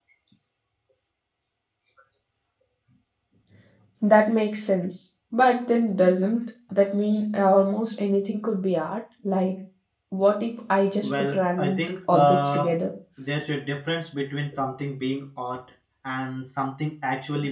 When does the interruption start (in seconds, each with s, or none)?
11.0 s